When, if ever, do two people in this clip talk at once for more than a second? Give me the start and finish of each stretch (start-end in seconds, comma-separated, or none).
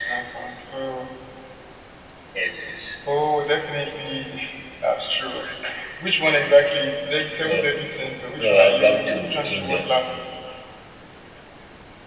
8.4-9.9